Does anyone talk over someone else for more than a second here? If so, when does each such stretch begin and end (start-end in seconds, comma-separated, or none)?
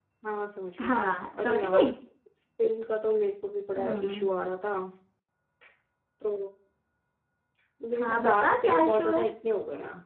8.0-9.2